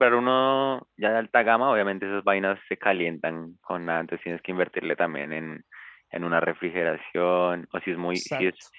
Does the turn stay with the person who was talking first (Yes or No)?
Yes